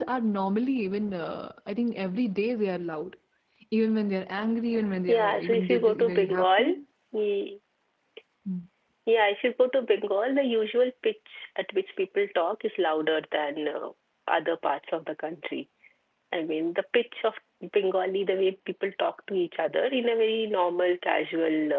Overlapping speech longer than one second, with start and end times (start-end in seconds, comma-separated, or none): 5.1-6.6